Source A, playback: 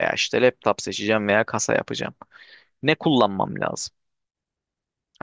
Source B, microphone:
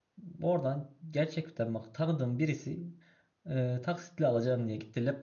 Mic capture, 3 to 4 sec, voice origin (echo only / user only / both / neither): user only